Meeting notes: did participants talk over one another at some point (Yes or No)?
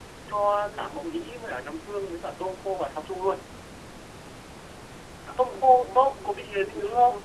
Yes